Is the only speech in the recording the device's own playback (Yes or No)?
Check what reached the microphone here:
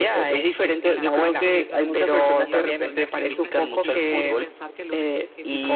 No